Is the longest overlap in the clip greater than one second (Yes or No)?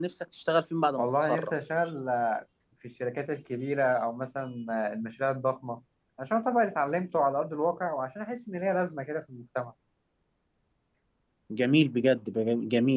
No